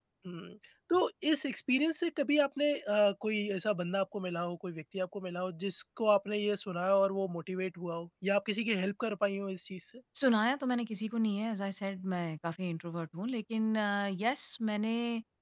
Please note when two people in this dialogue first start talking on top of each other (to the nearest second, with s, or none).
none